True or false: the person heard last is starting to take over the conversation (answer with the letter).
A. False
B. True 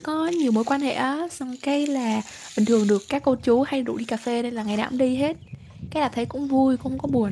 A